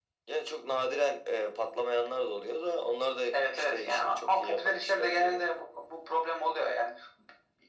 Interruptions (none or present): present